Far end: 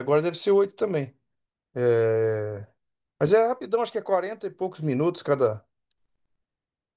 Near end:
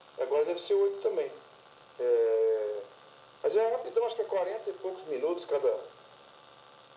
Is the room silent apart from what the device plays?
Yes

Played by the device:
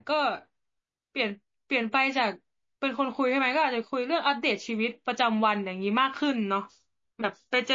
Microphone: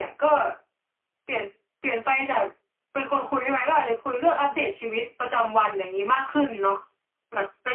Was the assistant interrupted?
No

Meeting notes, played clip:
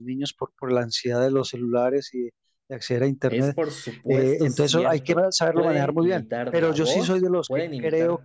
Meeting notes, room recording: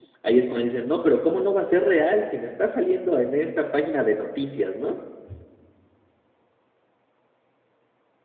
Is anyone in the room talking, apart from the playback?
Yes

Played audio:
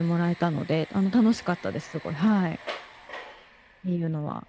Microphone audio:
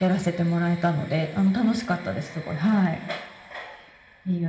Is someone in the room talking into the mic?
No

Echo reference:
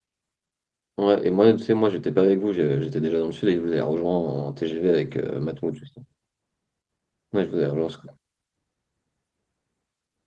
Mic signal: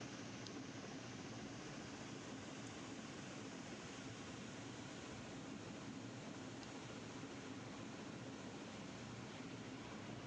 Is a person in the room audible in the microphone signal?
No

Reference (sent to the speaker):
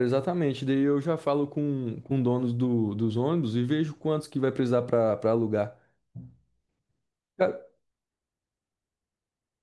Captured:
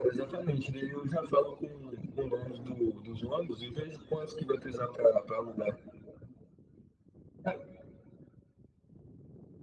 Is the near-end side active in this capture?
No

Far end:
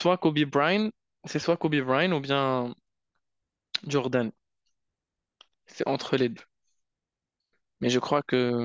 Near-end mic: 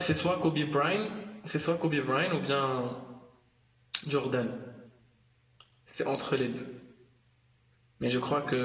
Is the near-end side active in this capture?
No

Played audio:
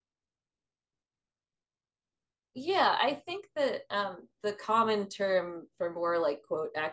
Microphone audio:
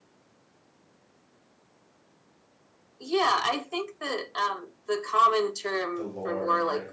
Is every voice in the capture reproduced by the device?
No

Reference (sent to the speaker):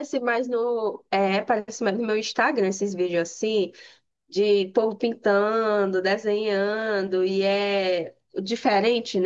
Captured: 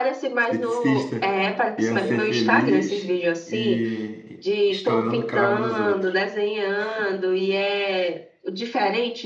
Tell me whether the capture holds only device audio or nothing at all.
No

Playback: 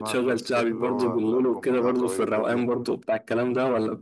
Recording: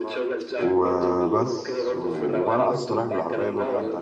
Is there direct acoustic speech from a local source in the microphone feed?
Yes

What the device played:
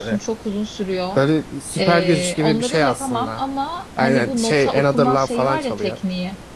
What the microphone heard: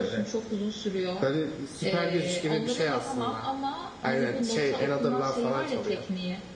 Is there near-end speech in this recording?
No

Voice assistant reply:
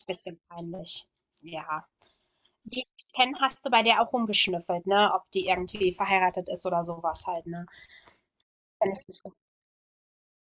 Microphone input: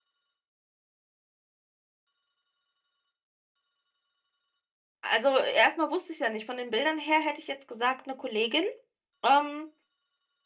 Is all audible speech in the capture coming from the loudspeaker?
No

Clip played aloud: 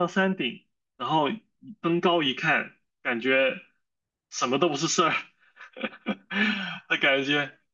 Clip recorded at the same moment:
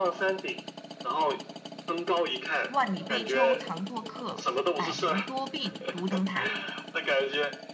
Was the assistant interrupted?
Yes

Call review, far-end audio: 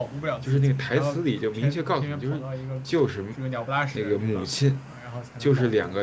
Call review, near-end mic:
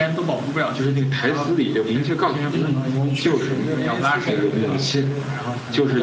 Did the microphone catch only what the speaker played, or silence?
No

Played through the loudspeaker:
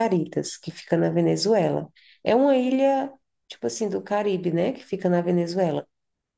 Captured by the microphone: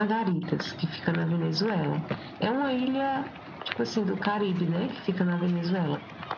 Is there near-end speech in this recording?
No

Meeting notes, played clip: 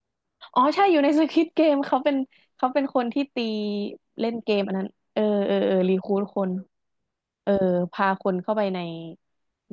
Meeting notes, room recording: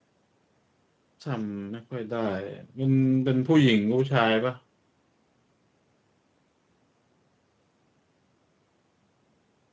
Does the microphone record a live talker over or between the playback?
Yes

